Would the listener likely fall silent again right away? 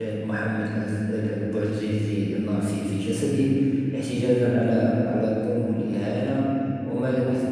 Yes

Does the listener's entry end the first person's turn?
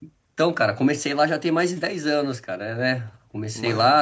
No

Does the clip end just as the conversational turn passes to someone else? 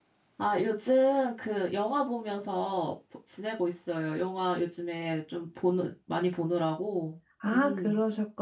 Yes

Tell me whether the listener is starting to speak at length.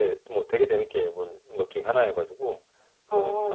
Yes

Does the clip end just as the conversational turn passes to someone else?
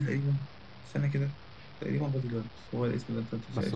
Yes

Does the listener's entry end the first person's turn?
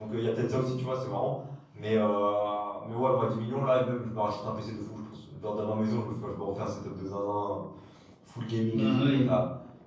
No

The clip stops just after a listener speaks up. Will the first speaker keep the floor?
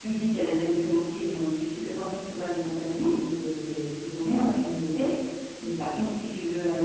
Yes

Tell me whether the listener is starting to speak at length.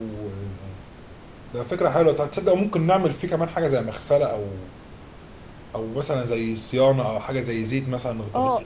Yes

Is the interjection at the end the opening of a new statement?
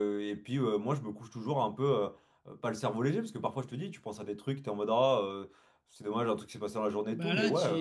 Yes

